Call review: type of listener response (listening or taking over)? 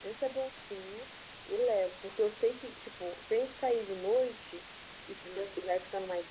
listening